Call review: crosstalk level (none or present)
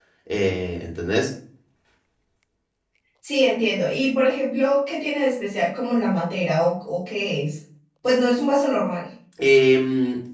none